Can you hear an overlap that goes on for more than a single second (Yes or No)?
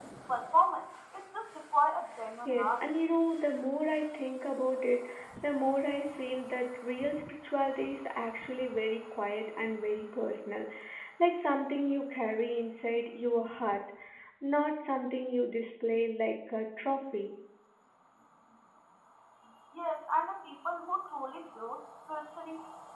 No